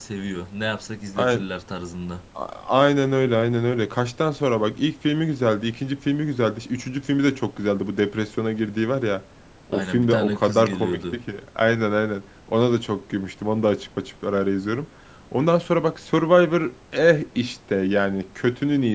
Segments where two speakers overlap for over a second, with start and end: 9.7-11.2

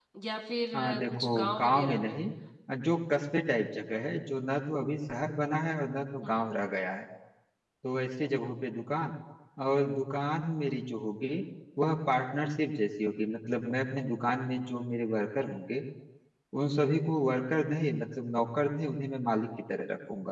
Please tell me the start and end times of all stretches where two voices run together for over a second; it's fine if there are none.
0.7-2.2

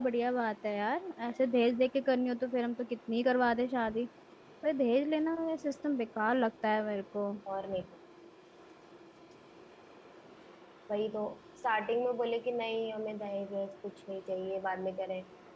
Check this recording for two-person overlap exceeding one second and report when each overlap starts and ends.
none

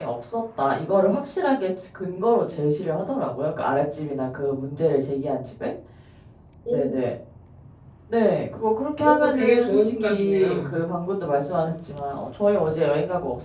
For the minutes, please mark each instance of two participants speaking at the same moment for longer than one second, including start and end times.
9.0-10.8

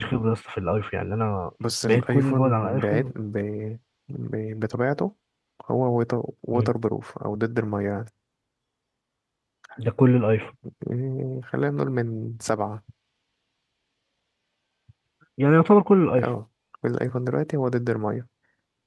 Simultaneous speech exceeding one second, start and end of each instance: 1.9-3.1

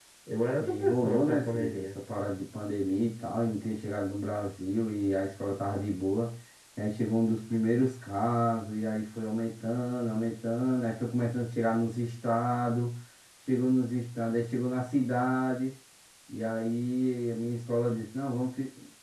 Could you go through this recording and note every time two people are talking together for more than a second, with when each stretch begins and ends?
0.6-1.9

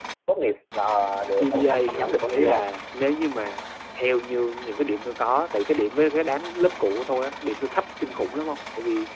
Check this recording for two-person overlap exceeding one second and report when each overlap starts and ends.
1.4-2.6

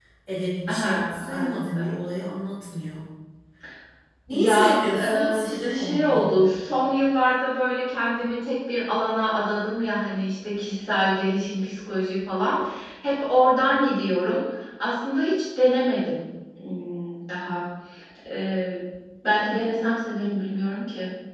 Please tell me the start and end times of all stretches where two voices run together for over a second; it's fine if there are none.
0.7-2.0, 4.3-6.5

